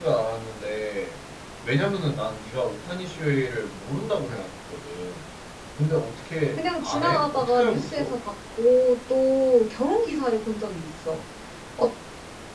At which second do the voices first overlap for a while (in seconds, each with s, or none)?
6.6 s